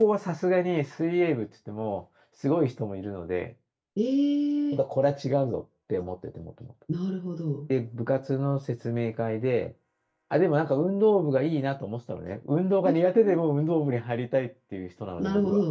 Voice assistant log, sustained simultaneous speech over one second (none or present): none